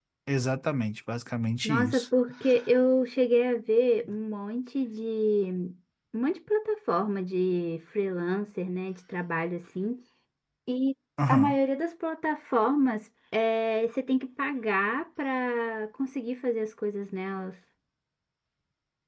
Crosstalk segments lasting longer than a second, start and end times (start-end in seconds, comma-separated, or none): none